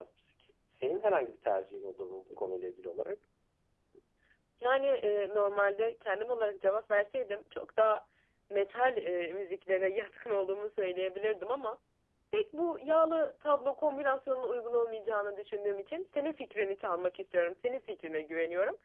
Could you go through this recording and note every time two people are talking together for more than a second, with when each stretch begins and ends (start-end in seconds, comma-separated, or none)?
none